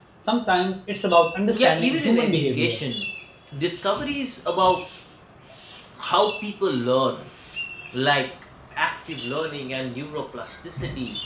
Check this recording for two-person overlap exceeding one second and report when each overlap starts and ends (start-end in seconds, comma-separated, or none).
1.5-2.8